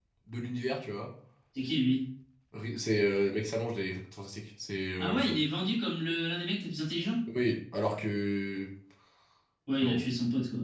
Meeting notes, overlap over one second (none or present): none